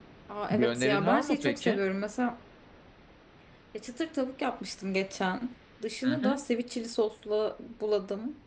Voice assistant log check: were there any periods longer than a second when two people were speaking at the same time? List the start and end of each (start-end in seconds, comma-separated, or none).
0.5-1.8